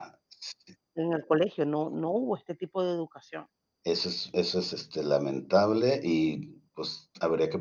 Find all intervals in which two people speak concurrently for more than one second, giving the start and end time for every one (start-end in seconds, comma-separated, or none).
none